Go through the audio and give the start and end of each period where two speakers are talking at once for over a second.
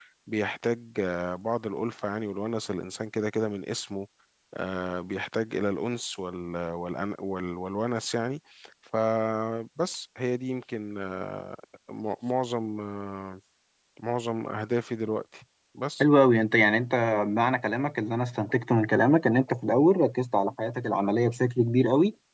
none

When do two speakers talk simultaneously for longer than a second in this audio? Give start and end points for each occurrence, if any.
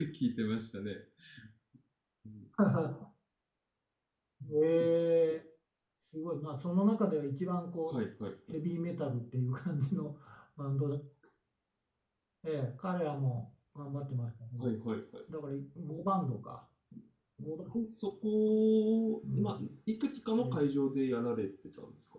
none

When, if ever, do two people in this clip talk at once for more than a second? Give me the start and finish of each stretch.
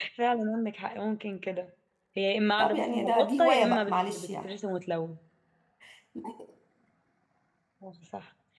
2.6-4.5

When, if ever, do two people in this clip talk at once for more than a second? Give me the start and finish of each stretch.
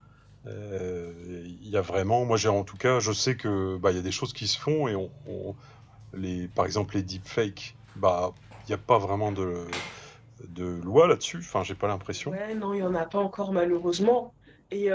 none

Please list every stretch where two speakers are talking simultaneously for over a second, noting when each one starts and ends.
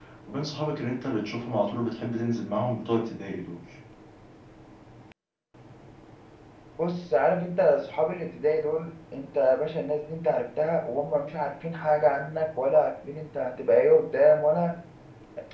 none

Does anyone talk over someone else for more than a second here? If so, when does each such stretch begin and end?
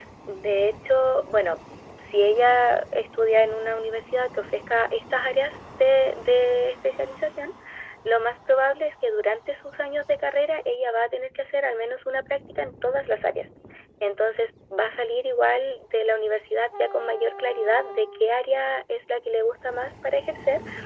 none

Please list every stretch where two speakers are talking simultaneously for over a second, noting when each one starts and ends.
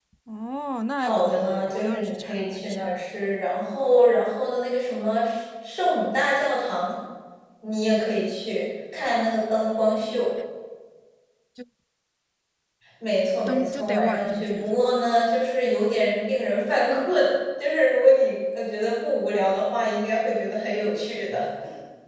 1.0-2.9, 13.5-14.9

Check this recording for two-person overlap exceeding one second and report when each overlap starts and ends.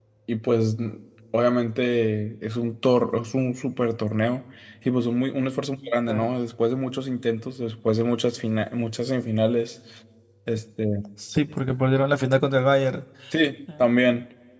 none

